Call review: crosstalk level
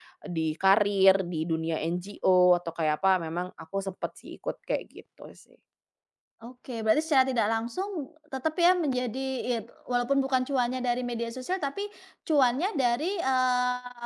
none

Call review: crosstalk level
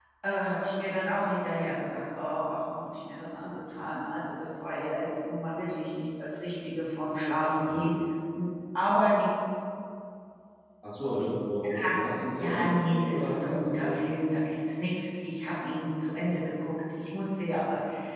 present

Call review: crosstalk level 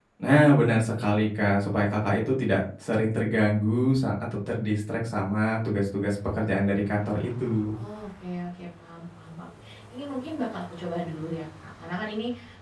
none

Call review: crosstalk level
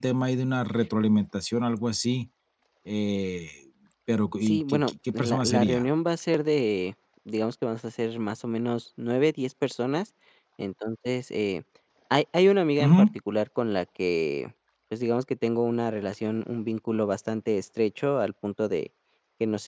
present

